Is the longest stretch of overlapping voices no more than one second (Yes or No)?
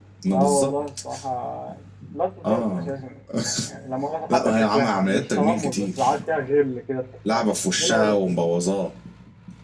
No